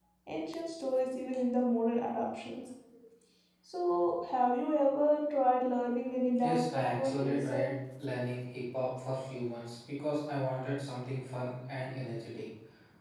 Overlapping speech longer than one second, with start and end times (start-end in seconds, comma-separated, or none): 6.4-7.7